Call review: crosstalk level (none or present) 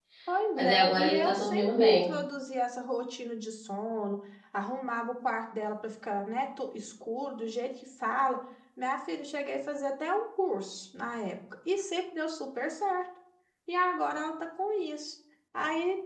present